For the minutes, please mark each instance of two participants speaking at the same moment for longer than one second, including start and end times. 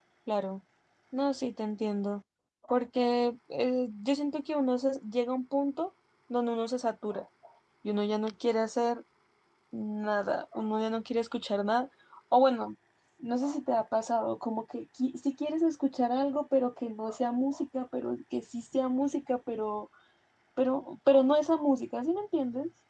none

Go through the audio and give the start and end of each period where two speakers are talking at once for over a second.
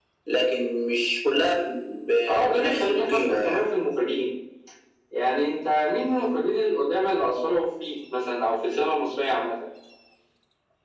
2.3-3.7

